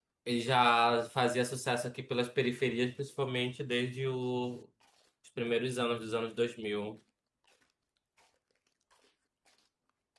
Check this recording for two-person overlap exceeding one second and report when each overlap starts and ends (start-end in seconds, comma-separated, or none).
none